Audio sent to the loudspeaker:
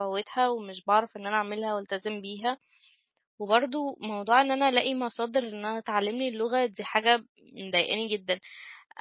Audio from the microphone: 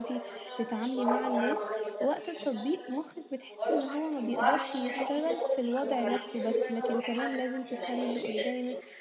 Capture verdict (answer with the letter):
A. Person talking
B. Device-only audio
A